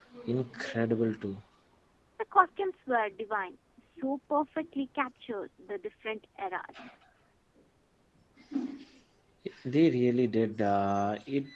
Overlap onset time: none

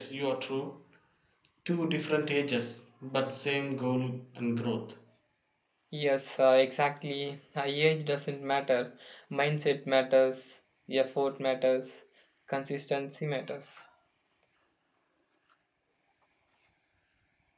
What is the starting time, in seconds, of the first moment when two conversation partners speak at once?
none

